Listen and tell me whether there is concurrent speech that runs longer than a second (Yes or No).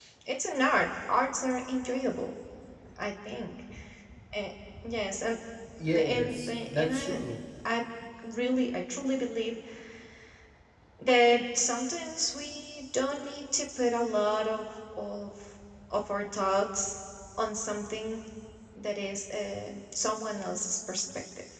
Yes